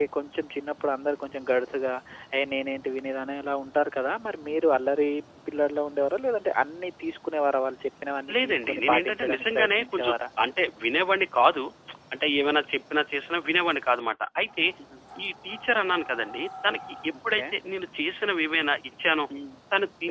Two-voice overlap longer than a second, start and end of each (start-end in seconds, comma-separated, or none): 8.4-10.2